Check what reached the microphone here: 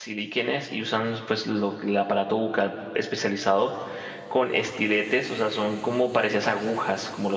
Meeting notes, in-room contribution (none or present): present